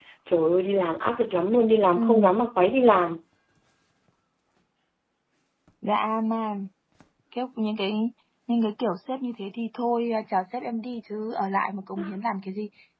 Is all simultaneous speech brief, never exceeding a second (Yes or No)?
Yes